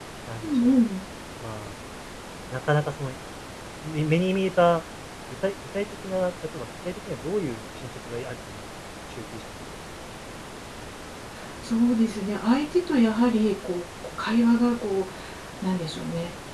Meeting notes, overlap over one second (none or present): none